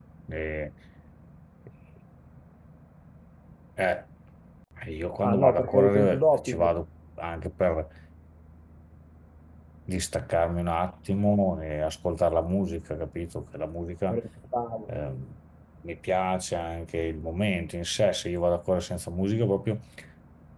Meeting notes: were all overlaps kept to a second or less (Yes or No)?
No